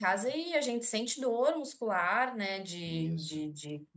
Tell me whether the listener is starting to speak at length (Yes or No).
No